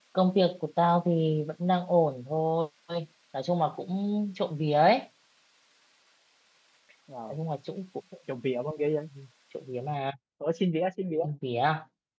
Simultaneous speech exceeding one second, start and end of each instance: none

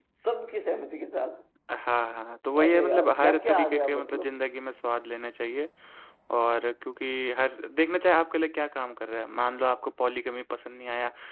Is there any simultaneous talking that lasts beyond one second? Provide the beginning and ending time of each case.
2.6-4.3

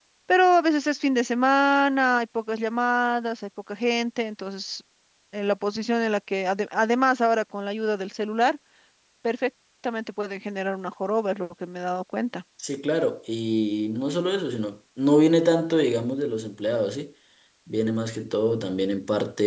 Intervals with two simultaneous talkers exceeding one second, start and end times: none

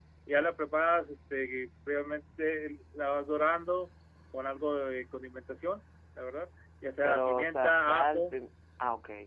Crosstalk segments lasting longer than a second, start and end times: 7.0-8.4

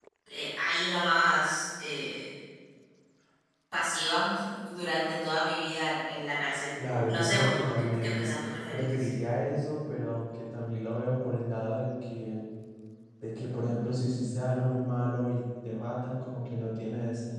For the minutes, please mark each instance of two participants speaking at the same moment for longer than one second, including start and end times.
6.9-8.3

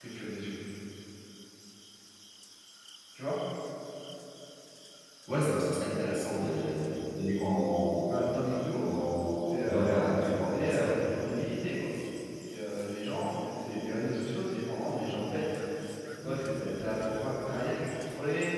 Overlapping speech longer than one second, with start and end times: 9.5-11.4

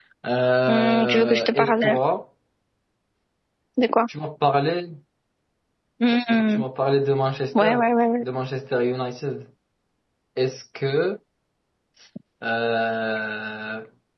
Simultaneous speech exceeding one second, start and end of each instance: 0.7-2.0

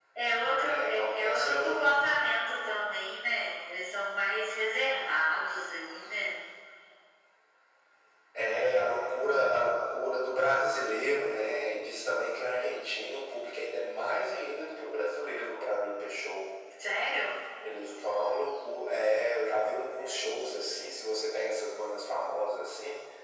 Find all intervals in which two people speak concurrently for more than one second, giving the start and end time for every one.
0.5-1.8

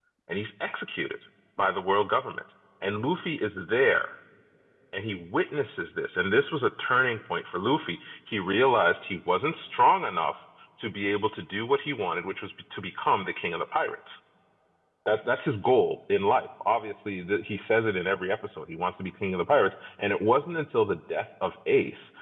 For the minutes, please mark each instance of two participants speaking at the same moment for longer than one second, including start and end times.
none

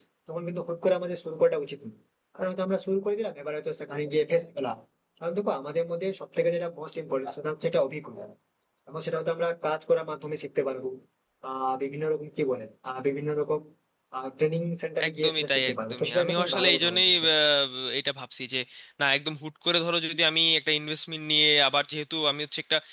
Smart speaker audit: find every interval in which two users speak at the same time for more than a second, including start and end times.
15.1-17.2

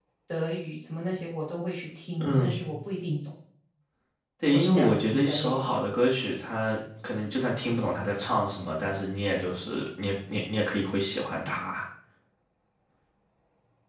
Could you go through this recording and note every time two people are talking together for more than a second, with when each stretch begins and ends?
4.5-5.8

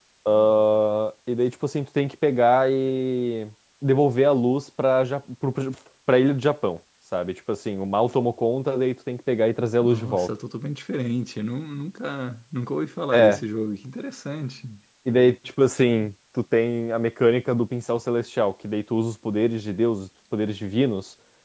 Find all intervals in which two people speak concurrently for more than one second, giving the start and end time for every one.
none

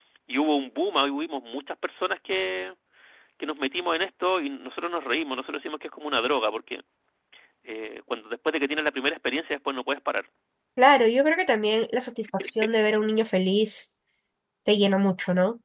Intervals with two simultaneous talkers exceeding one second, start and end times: none

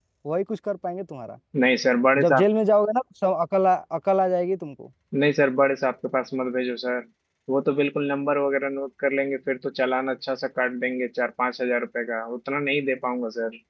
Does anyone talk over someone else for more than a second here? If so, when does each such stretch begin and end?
none

